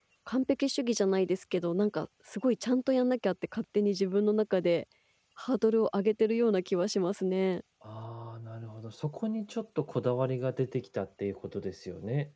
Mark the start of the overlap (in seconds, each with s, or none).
none